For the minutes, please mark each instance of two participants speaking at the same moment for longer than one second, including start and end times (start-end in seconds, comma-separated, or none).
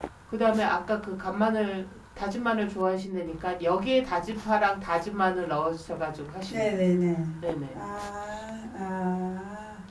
none